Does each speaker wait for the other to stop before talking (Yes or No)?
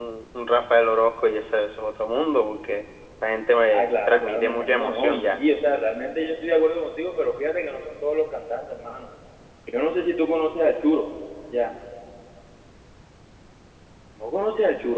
No